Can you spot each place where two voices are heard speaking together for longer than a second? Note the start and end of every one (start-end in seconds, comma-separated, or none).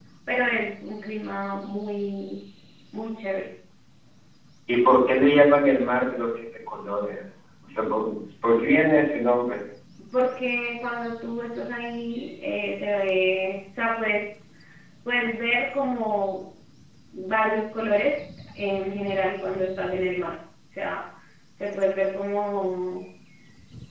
none